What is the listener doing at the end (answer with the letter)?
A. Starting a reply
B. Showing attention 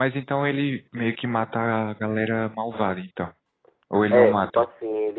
A